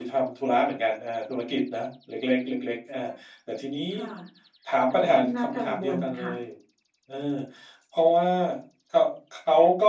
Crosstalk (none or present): present